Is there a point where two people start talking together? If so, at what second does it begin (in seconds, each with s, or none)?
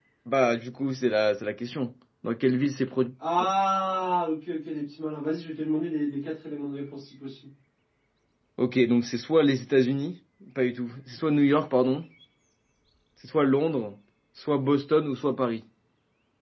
none